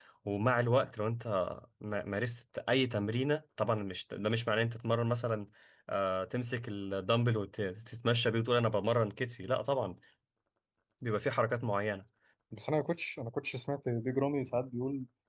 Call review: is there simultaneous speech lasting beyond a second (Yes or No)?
No